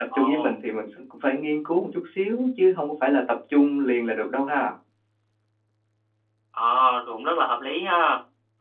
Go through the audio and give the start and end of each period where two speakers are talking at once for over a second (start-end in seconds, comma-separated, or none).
none